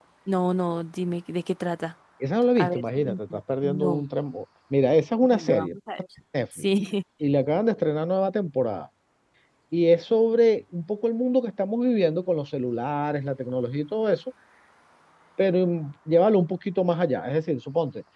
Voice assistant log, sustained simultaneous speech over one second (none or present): present